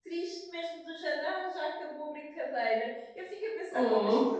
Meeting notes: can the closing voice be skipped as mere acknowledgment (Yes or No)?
Yes